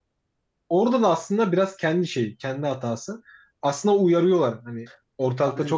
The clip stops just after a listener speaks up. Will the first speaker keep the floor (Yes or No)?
Yes